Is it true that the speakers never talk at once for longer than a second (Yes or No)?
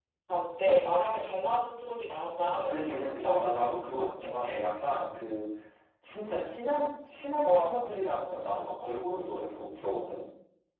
No